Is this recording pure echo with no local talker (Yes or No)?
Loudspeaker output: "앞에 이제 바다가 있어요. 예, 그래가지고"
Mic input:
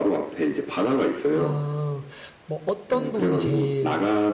No